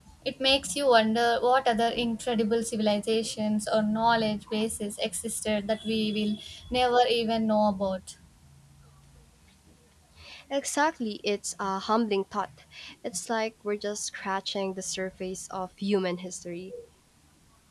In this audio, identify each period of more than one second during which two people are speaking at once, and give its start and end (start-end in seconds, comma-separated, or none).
none